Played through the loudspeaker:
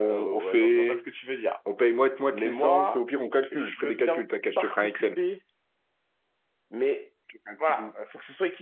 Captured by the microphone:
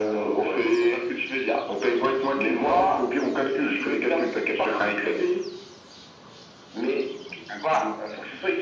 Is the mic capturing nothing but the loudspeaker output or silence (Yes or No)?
Yes